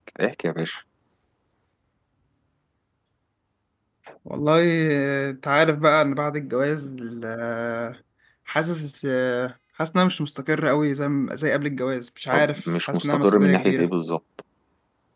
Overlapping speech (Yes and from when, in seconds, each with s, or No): Yes, from 12.3 s